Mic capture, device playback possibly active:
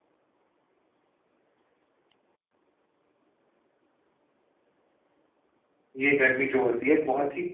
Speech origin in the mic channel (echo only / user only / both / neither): user only